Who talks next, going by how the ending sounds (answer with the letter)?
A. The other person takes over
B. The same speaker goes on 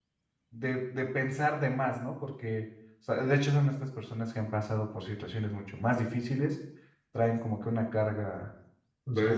A